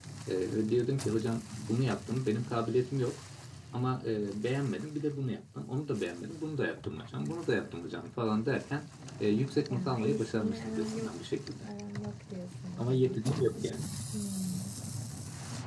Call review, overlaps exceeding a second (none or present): present